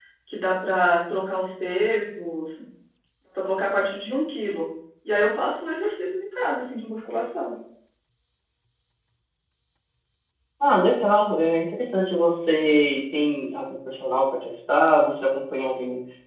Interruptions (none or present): none